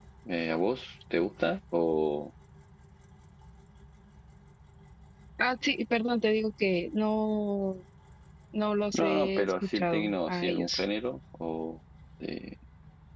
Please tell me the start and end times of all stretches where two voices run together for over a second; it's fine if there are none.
8.9-10.8

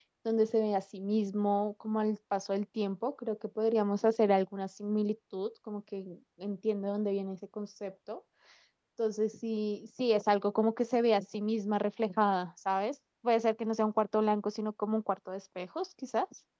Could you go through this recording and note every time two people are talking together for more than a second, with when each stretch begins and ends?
none

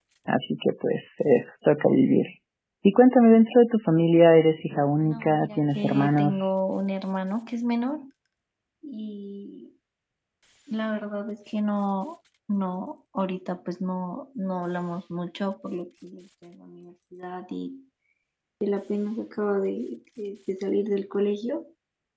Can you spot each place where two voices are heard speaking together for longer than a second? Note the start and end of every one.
5.0-6.5

